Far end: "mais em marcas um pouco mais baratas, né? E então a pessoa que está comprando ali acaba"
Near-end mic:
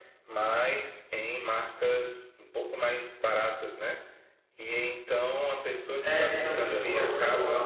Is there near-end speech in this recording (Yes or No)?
Yes